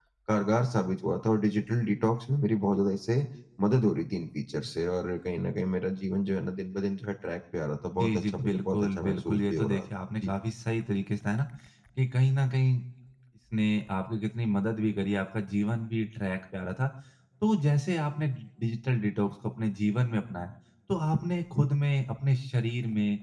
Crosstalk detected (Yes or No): Yes